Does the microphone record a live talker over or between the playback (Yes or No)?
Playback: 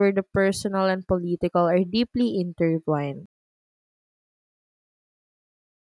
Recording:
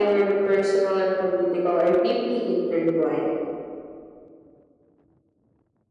No